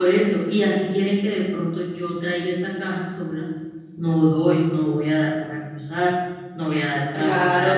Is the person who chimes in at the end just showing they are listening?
No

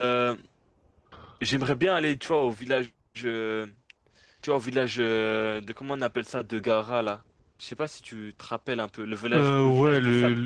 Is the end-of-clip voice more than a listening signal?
Yes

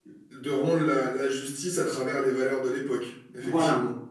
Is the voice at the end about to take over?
Yes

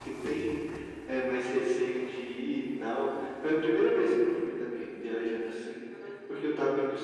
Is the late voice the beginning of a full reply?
No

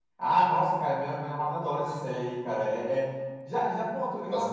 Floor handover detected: No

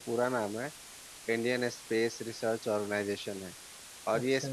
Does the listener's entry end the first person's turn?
No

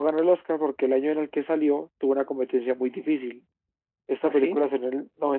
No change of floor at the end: Yes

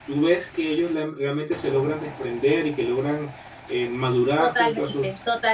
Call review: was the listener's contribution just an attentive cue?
No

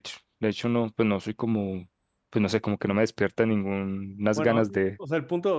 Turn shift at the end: Yes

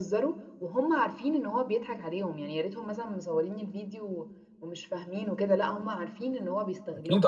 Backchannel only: No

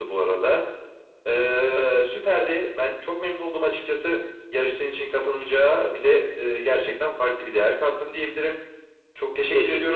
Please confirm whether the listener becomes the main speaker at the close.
No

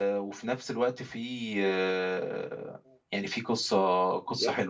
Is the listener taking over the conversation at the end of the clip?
Yes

